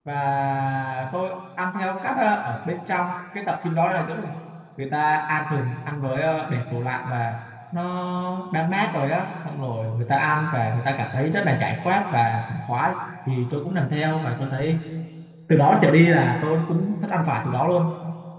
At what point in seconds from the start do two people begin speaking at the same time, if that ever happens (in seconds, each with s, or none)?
none